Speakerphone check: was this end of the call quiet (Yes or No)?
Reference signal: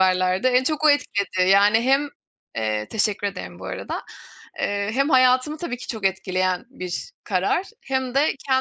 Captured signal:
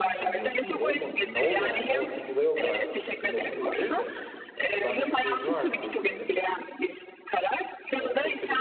No